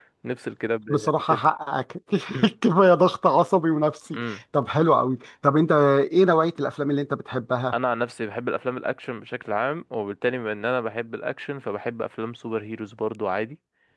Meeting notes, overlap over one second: none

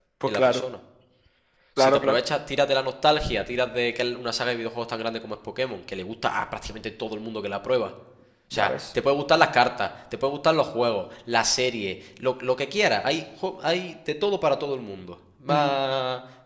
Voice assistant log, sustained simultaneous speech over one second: none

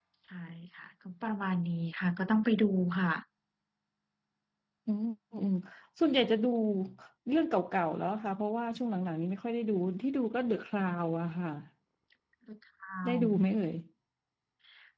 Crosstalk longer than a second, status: none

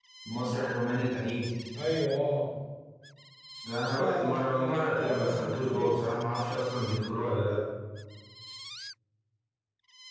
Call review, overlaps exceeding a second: present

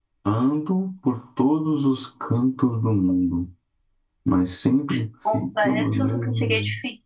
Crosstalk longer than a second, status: present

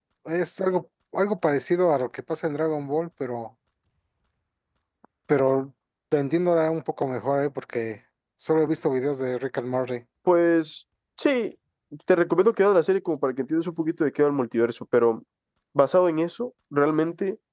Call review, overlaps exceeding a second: none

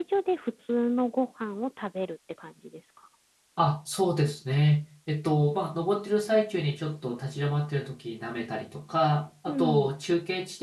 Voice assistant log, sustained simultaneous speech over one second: none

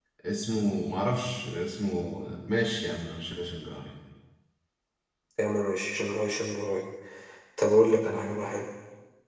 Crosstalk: none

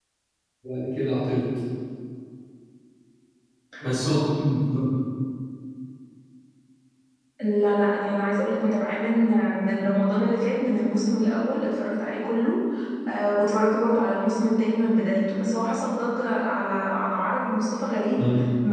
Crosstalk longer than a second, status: none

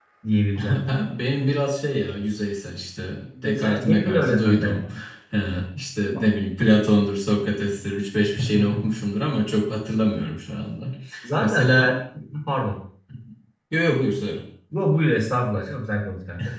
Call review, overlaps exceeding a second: present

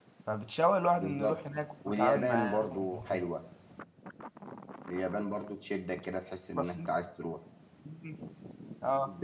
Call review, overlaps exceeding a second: present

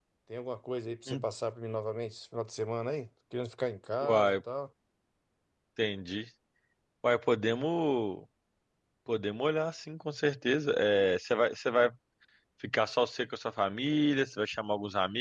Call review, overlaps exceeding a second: none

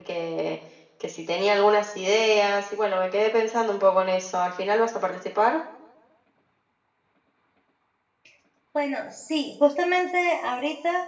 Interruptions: none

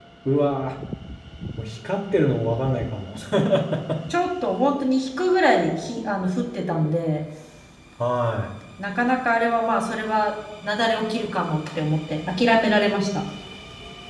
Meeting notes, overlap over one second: none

